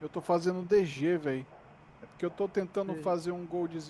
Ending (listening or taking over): listening